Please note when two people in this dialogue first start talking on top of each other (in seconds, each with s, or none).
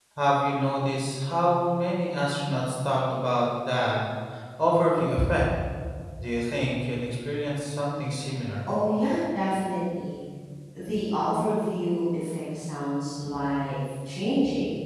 none